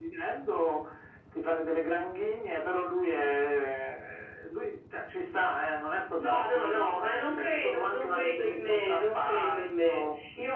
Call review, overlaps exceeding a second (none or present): present